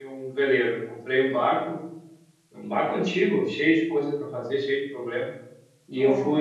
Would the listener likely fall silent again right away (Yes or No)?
Yes